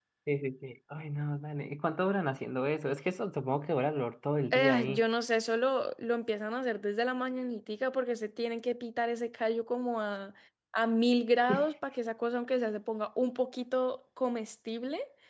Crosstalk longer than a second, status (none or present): none